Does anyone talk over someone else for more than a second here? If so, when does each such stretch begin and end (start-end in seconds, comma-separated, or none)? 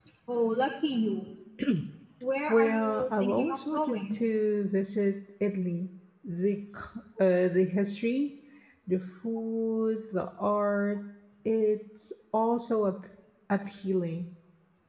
2.5-4.2